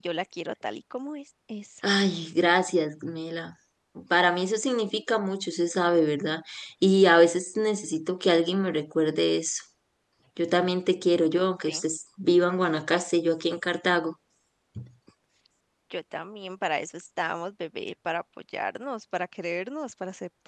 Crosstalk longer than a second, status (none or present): none